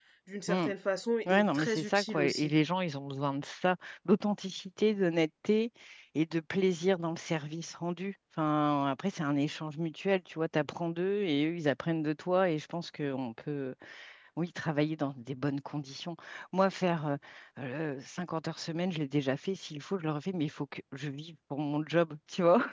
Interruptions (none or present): present